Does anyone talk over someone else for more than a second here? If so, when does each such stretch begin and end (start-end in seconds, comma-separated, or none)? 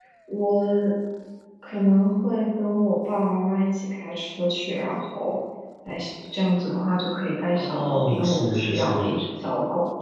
7.5-9.0